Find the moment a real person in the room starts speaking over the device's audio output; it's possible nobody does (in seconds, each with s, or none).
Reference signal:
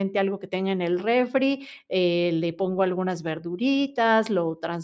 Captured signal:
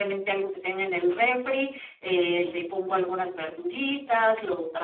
none